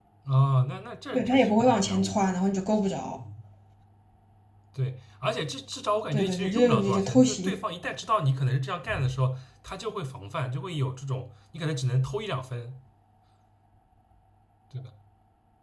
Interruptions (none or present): present